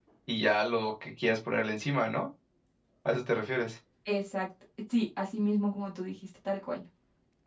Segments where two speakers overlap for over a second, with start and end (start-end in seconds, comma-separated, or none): none